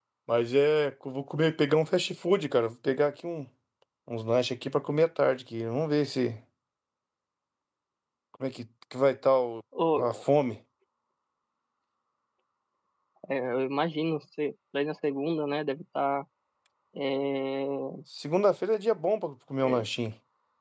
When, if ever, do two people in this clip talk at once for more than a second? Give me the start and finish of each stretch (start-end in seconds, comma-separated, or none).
none